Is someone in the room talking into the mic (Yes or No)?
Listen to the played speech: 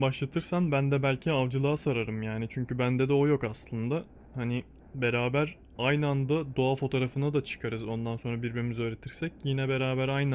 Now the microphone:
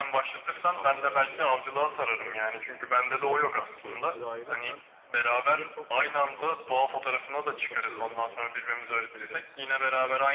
Yes